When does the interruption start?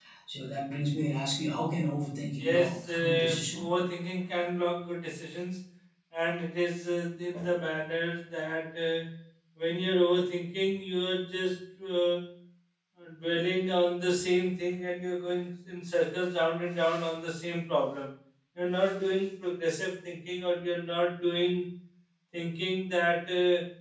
2.4 s

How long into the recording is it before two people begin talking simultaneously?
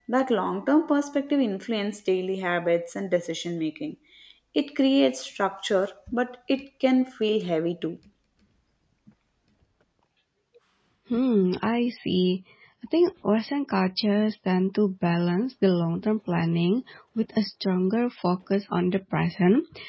none

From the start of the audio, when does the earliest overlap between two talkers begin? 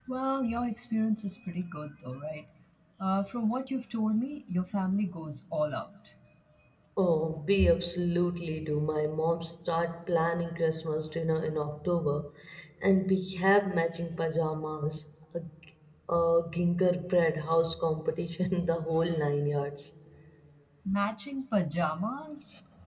none

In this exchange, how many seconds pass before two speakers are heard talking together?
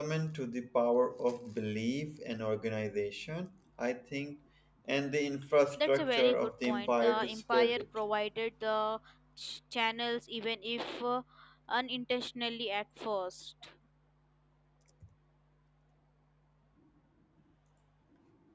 5.8 s

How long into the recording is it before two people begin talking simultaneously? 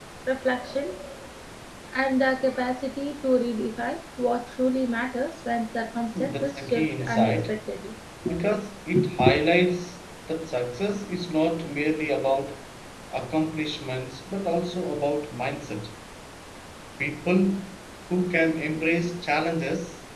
6.2 s

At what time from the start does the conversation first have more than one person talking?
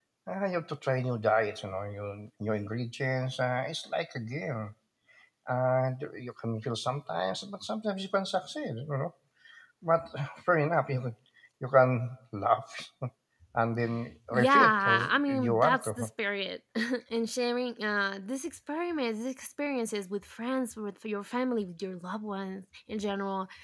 14.3 s

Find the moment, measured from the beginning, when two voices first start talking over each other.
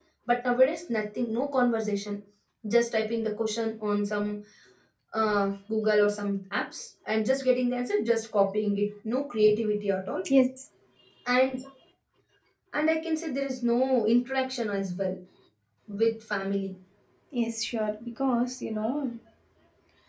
none

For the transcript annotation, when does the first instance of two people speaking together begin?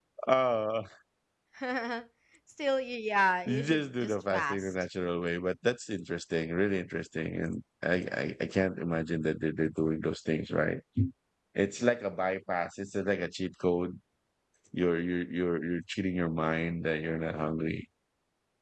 3.5 s

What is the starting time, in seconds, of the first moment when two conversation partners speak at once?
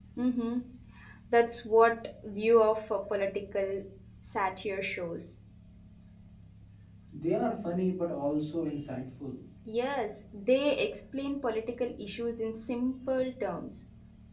none

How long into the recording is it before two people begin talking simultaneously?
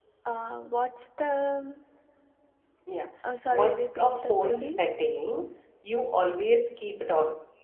3.5 s

